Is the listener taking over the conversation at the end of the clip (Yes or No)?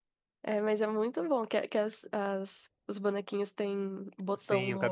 Yes